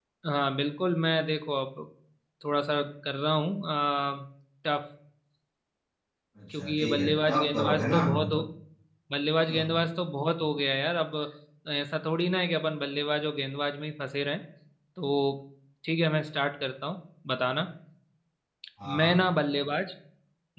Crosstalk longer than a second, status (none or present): present